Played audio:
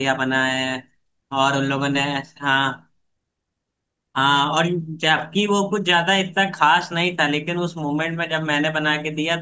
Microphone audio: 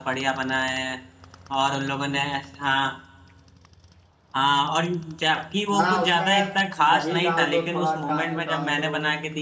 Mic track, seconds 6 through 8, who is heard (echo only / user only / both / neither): both